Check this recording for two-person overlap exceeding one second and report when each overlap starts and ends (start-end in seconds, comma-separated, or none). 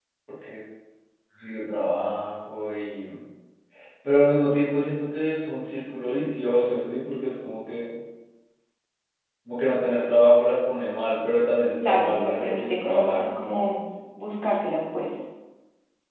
11.8-13.2